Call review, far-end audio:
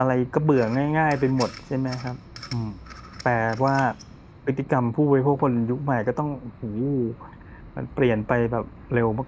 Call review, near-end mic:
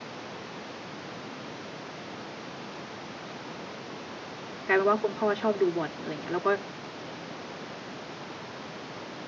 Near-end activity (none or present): present